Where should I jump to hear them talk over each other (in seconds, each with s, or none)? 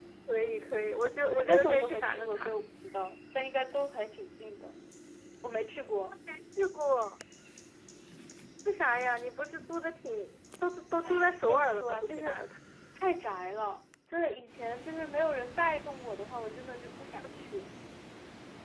1.3 s